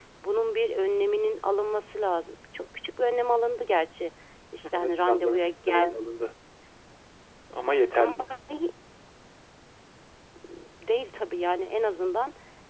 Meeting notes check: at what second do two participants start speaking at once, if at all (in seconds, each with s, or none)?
4.7 s